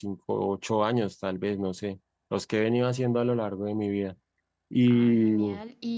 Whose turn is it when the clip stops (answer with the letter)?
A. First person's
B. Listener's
B